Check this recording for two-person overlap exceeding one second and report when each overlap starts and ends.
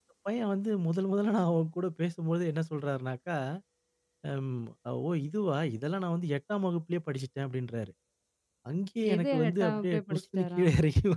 9.1-10.6

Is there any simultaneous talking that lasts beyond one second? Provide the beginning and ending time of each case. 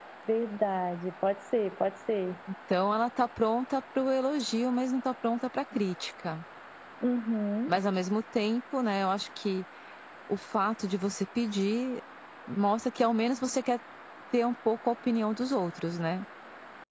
none

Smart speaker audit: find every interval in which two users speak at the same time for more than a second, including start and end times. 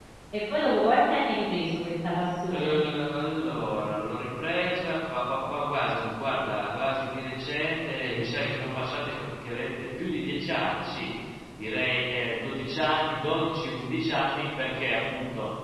none

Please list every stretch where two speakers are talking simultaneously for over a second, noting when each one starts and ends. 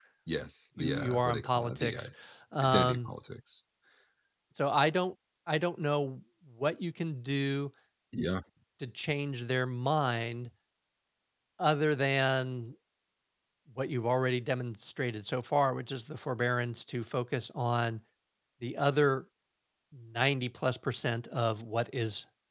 0.8-2.1

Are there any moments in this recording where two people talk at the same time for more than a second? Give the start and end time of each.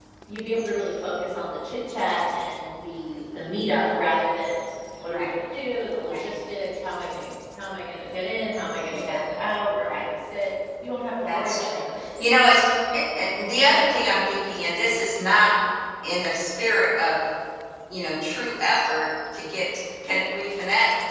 11.2-12.6

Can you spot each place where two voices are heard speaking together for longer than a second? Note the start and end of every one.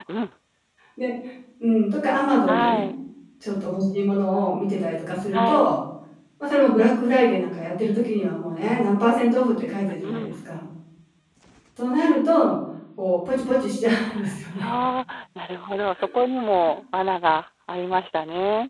none

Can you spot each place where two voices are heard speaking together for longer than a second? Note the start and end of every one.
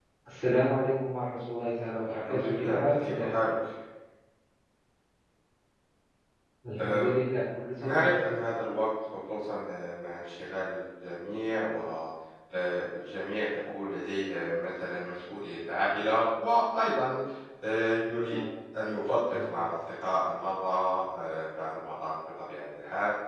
2.0-3.3

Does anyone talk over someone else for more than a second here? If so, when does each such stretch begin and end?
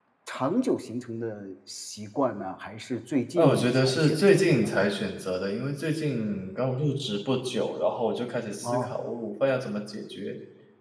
3.4-4.7

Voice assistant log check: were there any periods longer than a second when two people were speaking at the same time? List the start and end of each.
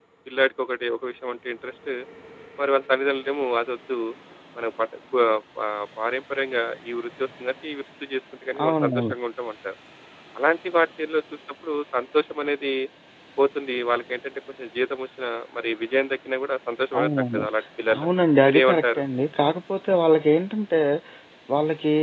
none

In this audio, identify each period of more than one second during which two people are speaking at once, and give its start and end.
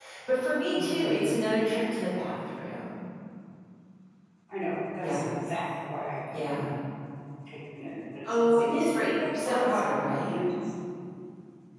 8.2-9.8

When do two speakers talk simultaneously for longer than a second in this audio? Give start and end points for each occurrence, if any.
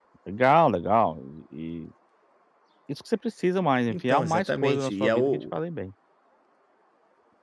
3.9-5.4

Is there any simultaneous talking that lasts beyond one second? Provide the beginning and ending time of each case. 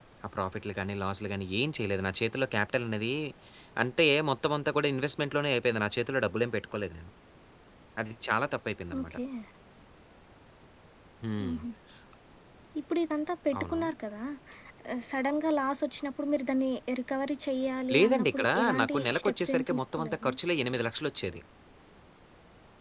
17.9-20.3

